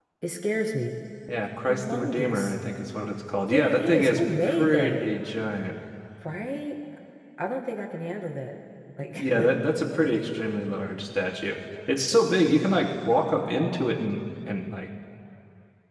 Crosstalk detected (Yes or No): Yes